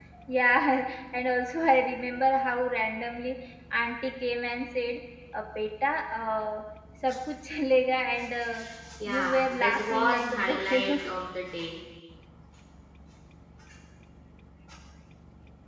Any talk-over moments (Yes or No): Yes